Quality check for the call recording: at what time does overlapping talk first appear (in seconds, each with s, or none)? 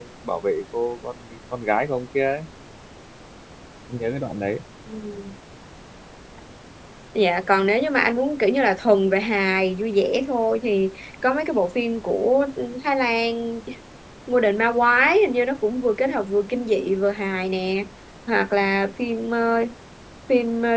none